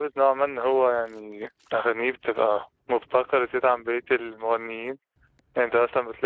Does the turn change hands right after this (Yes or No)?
No